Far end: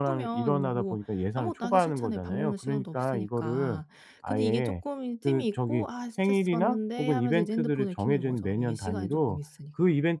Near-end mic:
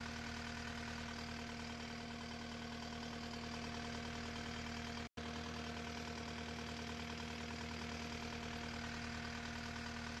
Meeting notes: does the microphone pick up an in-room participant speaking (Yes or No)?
No